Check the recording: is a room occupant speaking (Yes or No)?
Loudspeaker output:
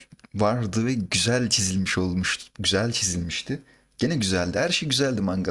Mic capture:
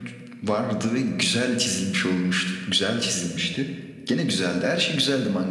No